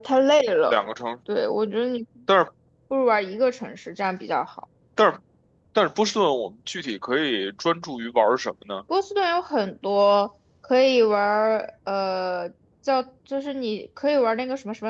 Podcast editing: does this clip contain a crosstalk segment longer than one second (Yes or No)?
No